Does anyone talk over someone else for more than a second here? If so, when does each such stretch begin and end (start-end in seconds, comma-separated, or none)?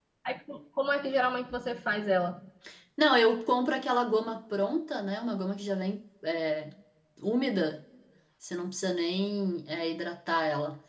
none